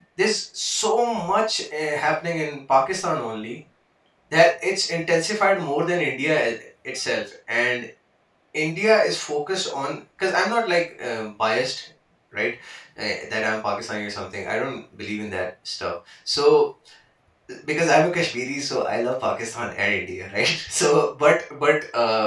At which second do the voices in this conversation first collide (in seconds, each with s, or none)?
none